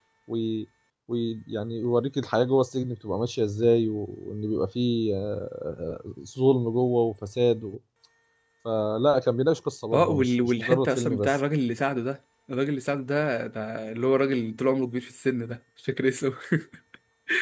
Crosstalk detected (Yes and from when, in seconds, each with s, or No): Yes, from 9.9 s